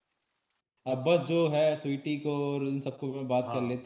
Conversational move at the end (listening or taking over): taking over